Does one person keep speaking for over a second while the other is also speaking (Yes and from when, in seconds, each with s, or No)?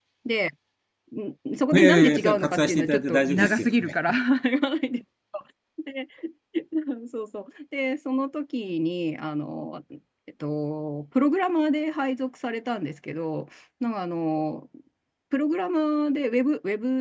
Yes, from 1.7 s